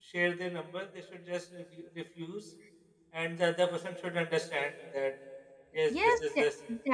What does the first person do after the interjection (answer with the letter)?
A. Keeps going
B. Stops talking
B